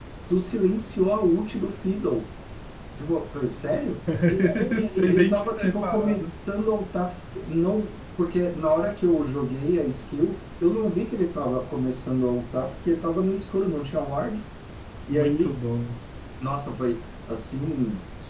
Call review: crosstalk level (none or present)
present